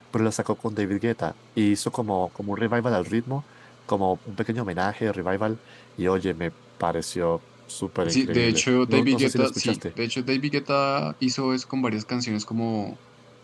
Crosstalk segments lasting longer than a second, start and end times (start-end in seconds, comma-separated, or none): 8.0-9.8